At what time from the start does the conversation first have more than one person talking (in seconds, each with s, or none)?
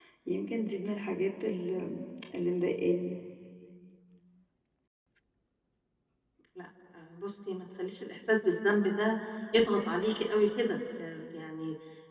none